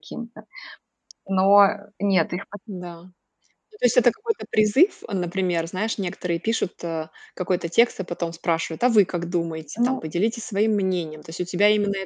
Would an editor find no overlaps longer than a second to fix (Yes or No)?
Yes